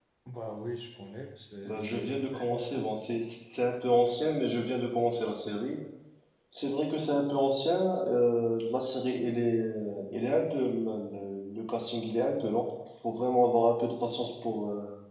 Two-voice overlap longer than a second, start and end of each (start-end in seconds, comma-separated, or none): 1.6-2.9